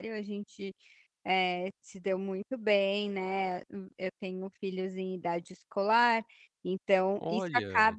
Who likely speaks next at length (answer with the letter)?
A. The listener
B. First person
B